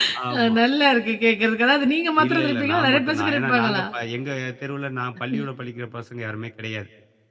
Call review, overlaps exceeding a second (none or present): present